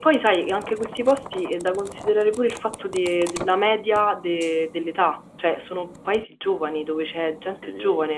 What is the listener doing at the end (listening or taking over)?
listening